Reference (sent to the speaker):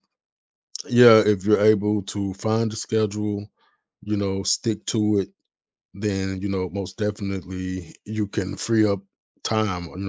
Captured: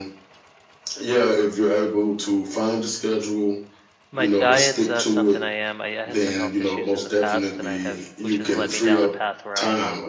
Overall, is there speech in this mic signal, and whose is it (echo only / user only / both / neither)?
both